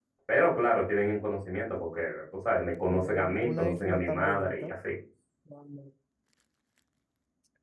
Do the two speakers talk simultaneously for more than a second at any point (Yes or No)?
Yes